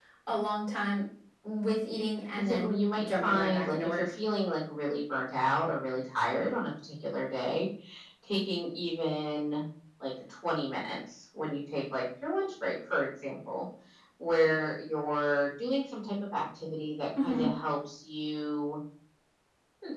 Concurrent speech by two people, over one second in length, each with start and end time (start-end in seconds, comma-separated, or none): 2.4-4.1